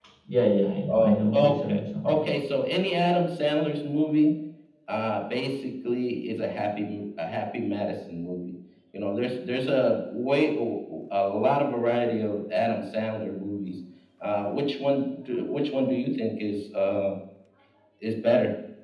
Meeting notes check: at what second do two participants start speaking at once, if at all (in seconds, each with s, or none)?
0.9 s